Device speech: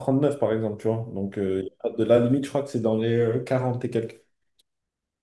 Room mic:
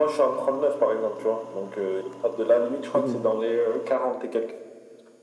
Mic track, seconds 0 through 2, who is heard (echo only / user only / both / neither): echo only